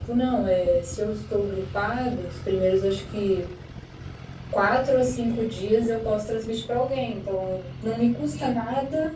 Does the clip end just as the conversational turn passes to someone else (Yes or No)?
No